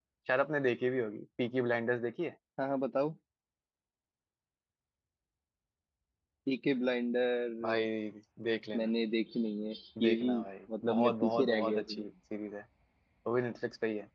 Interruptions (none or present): present